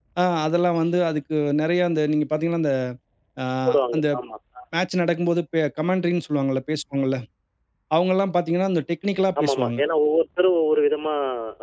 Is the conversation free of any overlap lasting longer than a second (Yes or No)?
Yes